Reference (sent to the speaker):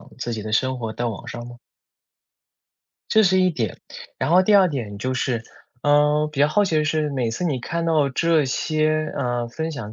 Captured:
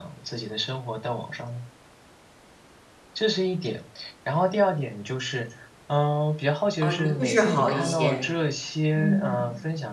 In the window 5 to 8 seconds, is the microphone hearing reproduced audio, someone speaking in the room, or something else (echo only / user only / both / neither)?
both